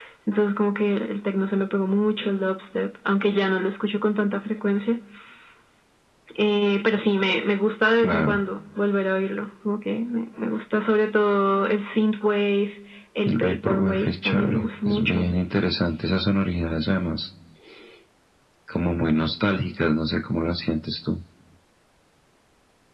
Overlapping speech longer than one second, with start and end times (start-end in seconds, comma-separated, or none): 13.2-15.3